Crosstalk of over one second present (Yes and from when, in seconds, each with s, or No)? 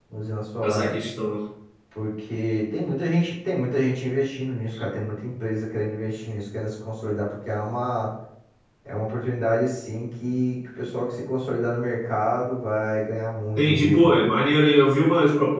No